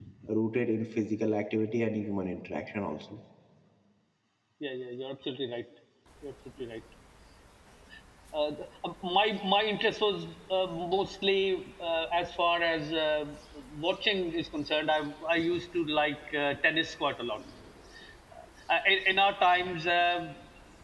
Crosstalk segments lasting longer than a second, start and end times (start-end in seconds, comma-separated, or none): none